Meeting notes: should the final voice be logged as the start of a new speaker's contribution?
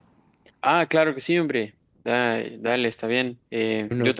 No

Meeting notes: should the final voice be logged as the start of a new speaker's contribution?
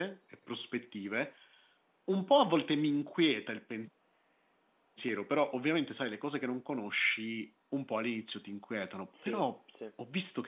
No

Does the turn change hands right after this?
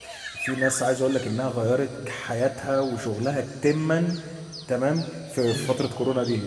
No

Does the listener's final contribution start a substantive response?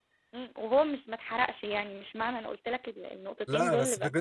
Yes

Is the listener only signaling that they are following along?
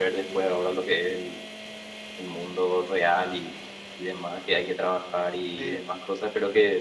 Yes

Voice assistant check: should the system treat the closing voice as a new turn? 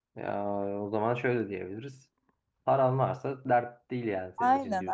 Yes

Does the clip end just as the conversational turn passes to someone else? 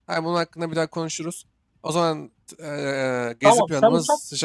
Yes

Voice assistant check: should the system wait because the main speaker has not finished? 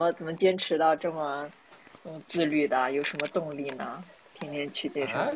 No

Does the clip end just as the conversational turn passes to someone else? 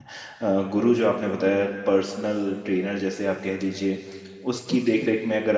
No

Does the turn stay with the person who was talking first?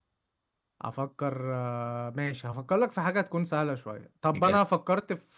Yes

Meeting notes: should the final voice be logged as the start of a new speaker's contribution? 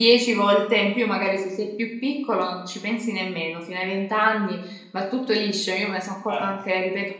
No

